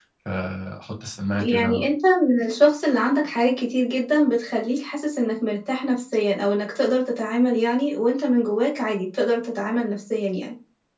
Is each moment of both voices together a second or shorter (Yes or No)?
Yes